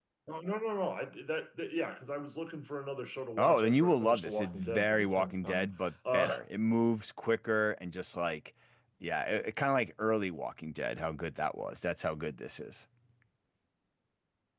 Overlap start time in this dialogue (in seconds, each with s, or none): 3.4 s